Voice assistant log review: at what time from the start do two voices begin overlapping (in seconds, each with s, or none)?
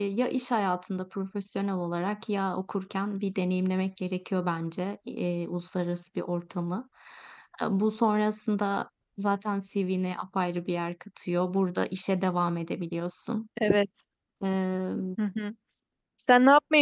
none